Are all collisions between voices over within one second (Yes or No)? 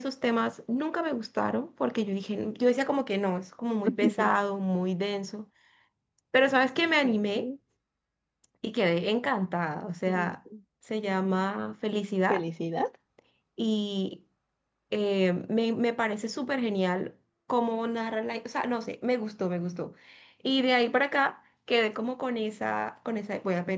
Yes